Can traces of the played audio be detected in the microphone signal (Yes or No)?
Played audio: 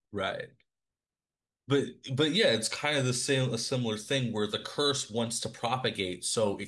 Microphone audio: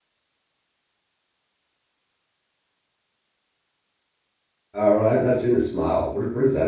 No